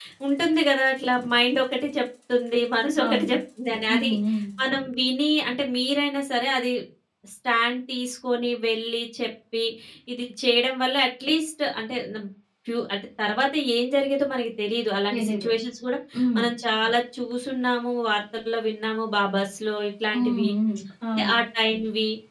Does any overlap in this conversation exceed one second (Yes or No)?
No